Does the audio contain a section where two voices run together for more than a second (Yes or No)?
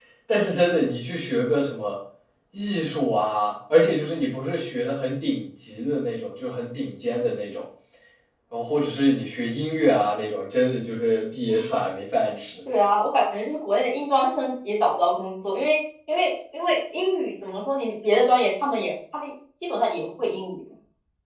No